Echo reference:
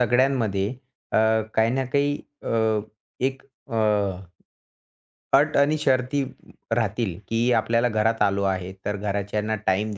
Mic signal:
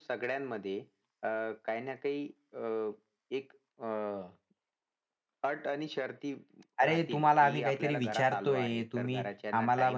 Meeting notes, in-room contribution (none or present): present